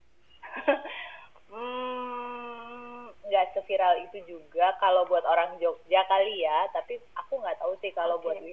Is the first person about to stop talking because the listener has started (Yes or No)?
No